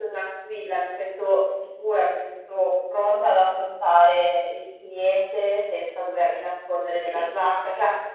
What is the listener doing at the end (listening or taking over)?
listening